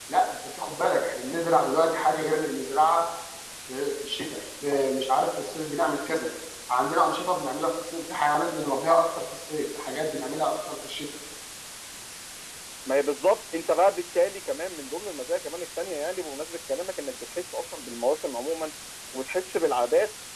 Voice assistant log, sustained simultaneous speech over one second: none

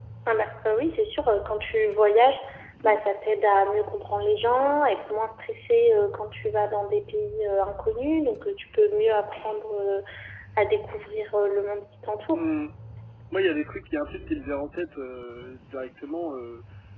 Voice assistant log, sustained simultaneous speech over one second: none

